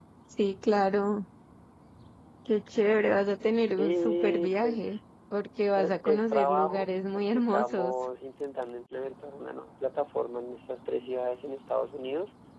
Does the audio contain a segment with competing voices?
Yes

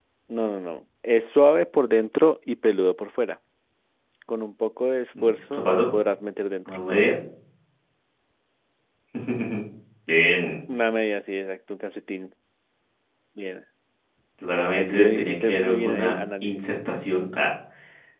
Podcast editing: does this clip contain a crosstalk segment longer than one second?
Yes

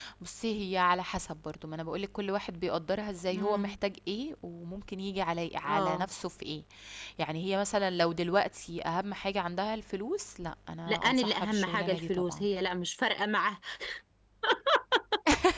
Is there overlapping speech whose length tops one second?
Yes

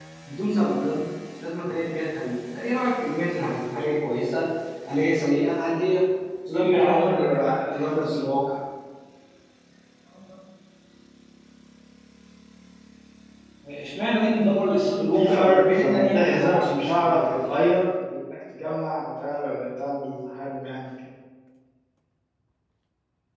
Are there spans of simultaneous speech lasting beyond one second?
Yes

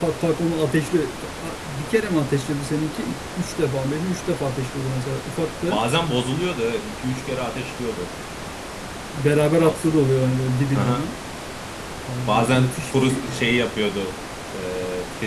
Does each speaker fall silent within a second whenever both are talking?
No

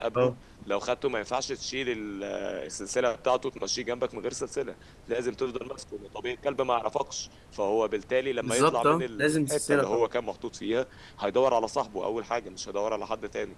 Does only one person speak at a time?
No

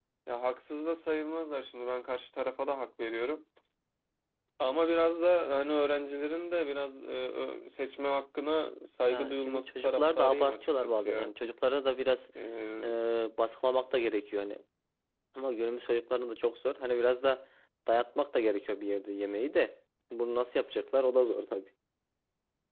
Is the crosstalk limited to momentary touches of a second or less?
No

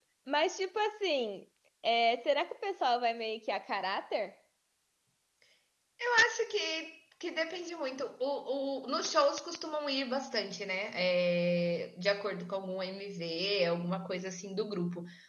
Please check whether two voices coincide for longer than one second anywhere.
No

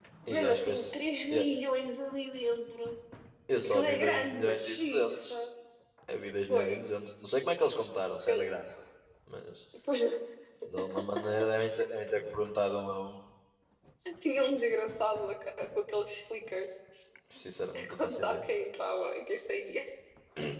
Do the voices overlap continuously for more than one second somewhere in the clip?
Yes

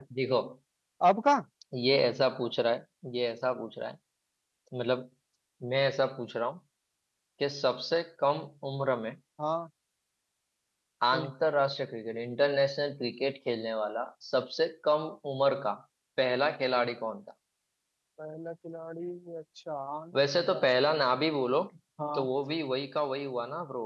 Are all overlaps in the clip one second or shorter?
Yes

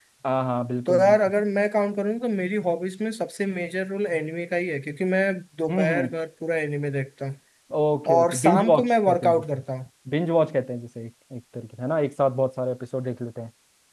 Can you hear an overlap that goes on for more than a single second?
Yes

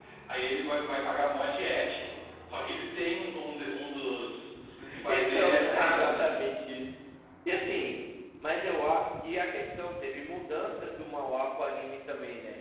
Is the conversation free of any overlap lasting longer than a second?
No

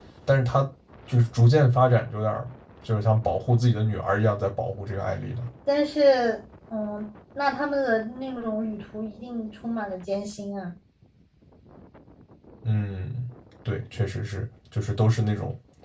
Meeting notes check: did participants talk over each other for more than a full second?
No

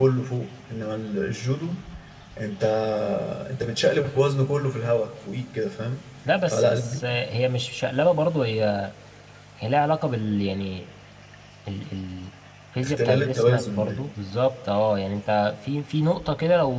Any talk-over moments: Yes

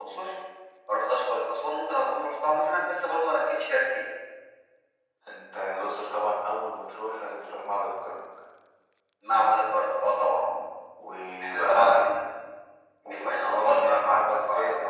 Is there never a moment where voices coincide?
No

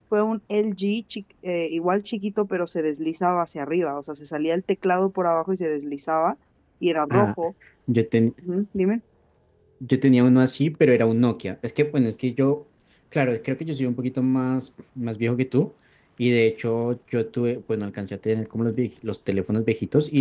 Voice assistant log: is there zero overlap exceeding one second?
Yes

